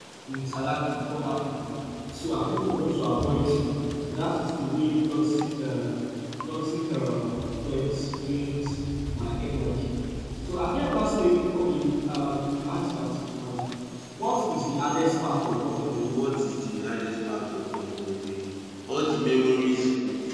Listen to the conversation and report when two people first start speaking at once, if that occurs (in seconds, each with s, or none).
none